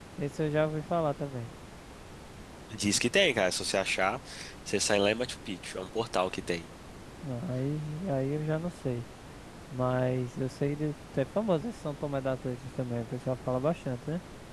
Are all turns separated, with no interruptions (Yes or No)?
Yes